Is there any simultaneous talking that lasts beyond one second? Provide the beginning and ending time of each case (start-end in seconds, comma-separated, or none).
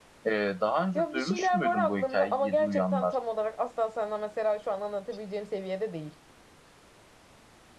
0.9-3.1